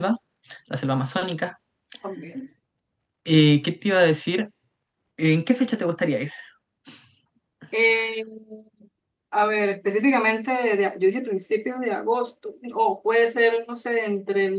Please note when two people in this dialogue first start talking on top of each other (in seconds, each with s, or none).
none